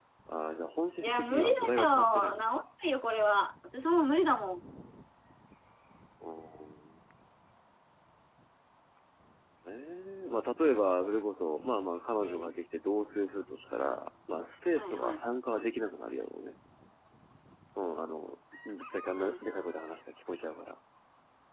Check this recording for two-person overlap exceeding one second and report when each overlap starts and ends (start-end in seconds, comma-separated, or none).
1.0-2.6